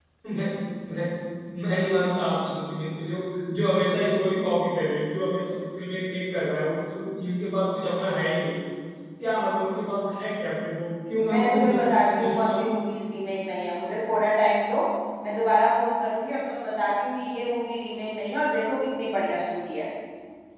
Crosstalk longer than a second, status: present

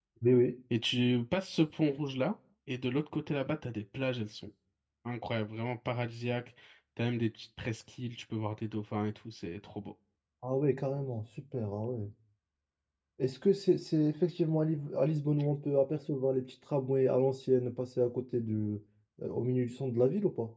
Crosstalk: none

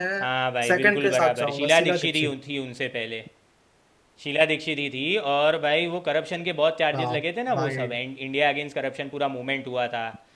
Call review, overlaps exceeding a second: present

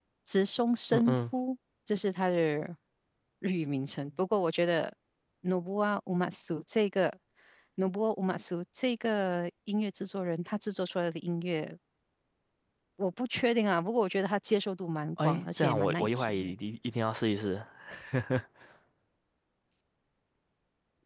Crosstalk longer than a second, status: present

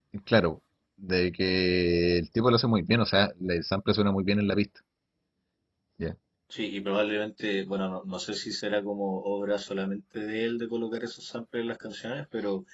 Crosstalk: none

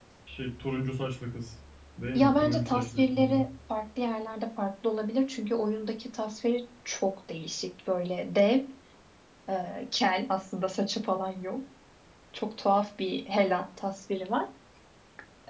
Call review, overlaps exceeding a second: present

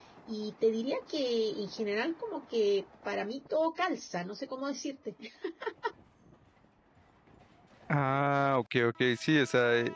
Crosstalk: none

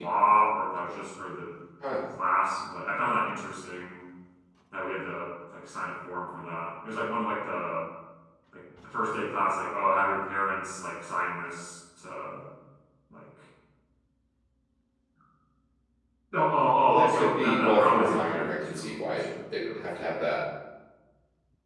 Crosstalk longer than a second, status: present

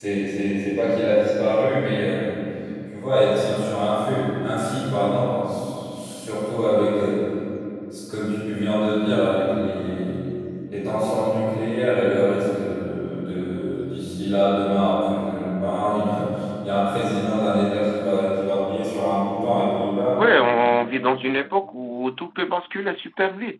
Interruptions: none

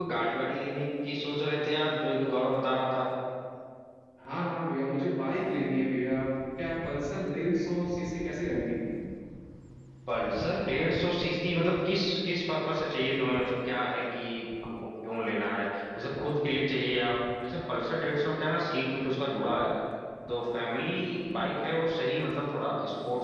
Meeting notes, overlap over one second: none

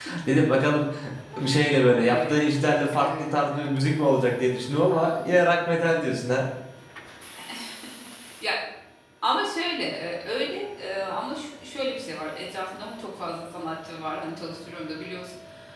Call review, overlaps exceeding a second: none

